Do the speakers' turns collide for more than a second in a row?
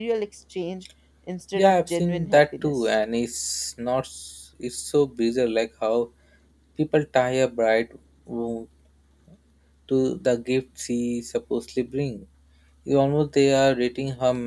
Yes, from 1.5 s

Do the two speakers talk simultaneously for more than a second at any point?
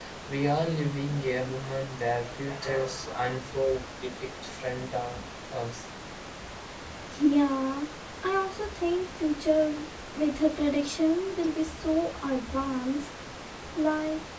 No

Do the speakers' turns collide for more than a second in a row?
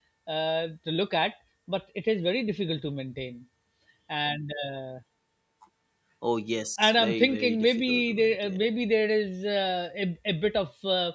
Yes, from 6.8 s

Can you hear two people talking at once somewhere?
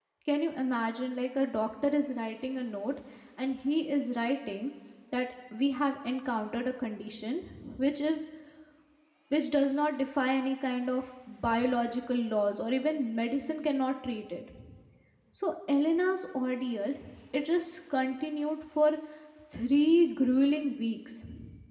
No

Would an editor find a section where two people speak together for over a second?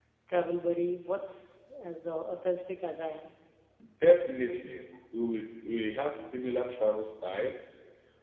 No

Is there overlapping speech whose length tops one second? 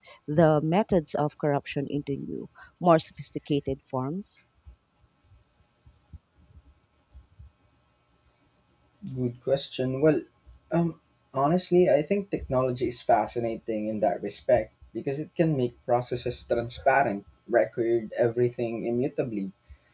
No

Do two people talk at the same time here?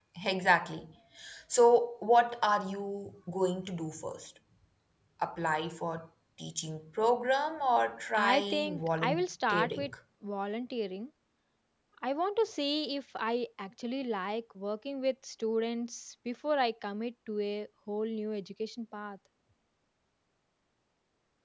Yes, from 8.1 s

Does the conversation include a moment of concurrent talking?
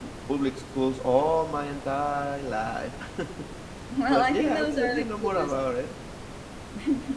Yes, from 4.1 s

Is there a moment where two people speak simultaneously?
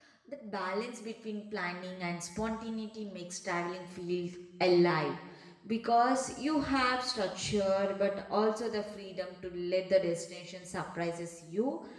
No

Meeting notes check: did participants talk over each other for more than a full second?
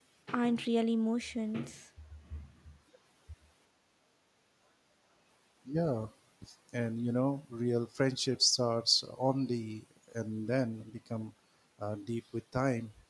No

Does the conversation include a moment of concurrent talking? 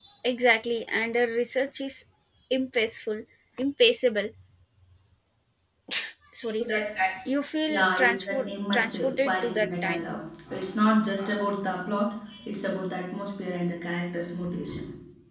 Yes, from 7.7 s

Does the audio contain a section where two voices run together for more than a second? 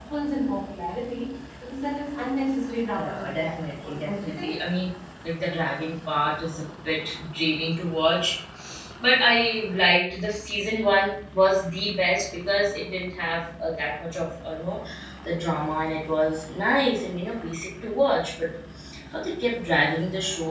Yes, from 3.0 s

